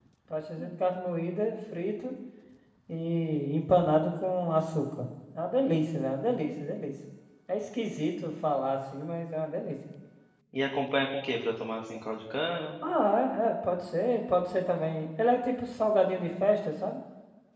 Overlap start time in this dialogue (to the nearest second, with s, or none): none